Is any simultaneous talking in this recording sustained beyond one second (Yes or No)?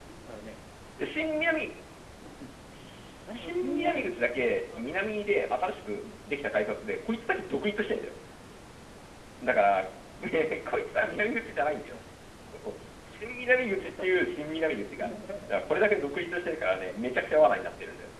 Yes